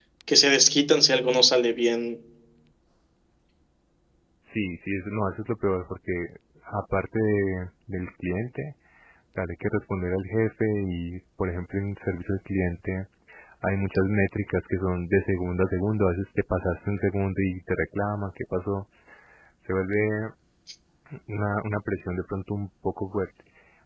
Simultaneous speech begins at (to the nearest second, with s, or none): none